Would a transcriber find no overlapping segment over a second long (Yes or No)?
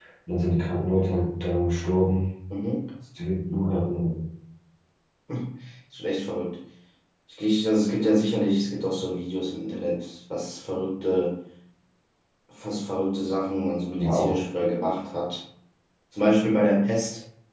Yes